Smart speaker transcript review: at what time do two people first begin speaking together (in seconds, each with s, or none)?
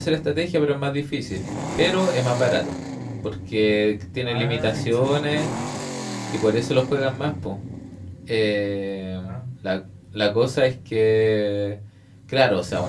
4.2 s